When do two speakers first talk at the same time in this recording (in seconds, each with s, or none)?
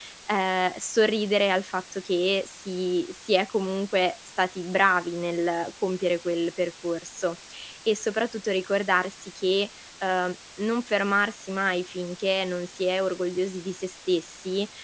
none